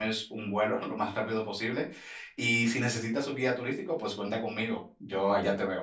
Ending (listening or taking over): taking over